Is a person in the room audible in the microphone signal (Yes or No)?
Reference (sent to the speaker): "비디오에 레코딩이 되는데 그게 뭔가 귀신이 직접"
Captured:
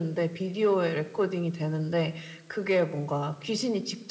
No